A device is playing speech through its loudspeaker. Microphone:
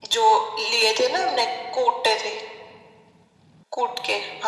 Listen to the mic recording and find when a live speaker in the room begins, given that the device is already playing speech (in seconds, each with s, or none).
none